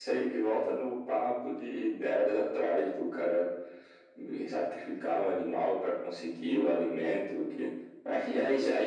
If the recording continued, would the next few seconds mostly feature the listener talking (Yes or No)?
No